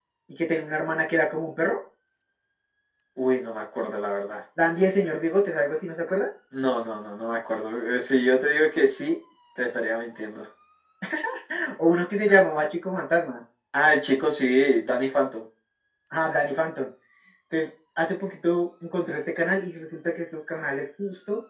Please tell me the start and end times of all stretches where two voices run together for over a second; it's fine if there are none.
none

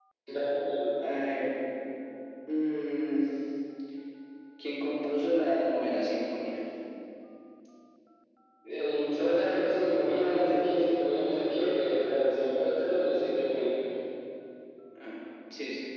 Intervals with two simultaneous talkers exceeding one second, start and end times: none

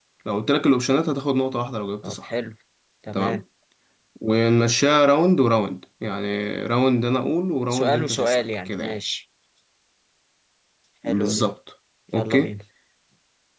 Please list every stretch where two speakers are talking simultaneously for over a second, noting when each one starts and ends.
7.7-9.0

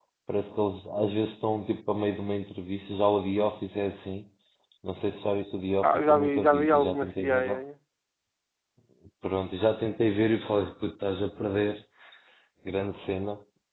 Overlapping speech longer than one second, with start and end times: 5.8-7.6

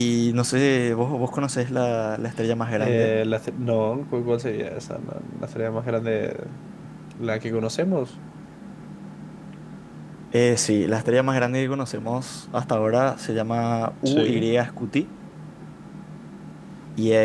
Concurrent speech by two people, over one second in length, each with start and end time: none

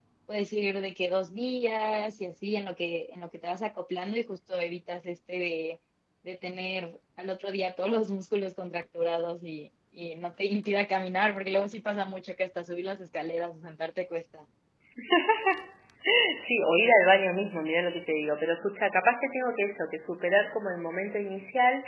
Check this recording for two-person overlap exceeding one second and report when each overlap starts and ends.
none

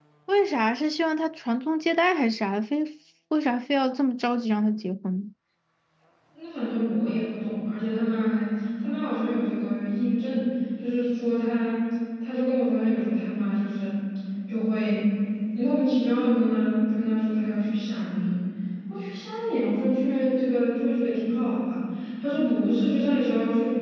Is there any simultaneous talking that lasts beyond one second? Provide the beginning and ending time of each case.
none

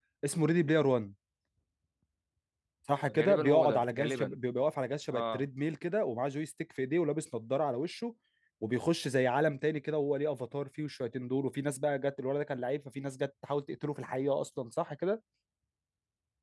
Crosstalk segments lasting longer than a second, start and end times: 3.2-4.4

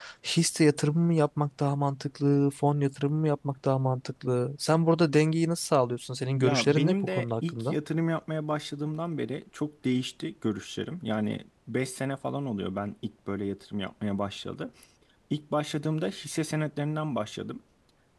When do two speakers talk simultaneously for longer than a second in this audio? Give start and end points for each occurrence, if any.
6.4-7.8

